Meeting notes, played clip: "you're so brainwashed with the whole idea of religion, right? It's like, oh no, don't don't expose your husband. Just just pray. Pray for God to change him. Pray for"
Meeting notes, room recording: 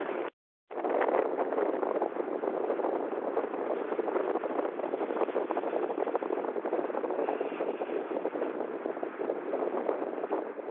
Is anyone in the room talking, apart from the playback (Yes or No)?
No